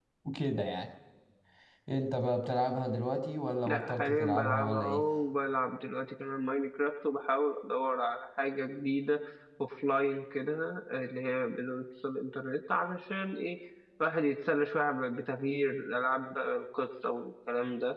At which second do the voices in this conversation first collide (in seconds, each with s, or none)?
3.7 s